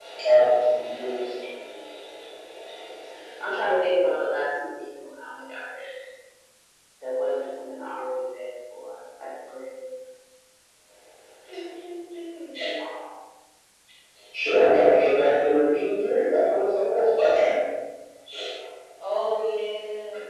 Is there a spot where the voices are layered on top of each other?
No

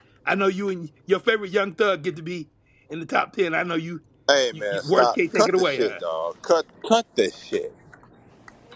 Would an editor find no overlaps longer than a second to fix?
No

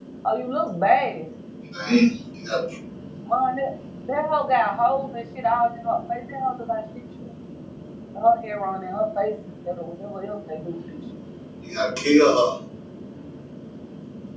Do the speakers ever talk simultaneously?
No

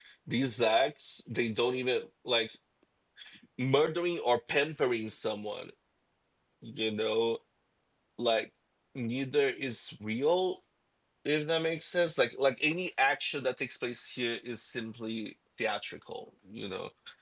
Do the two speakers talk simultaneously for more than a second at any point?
No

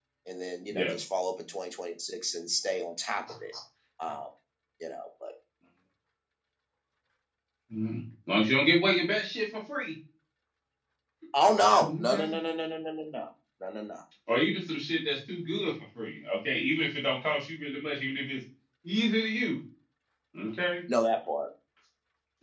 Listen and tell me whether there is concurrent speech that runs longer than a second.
No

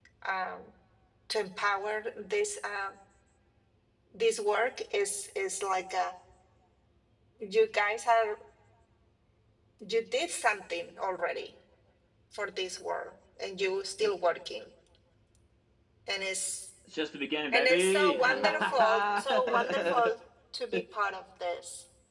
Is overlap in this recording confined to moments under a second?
No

